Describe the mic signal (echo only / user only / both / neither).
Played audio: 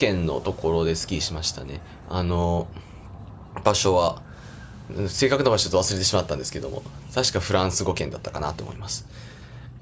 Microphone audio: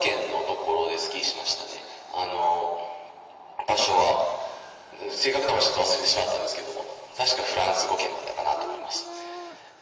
both